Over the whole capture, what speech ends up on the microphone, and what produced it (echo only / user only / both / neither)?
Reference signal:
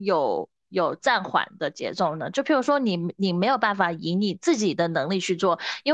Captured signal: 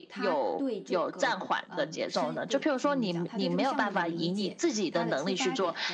both